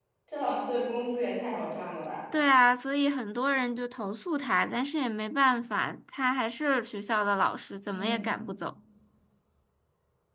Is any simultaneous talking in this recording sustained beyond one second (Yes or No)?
No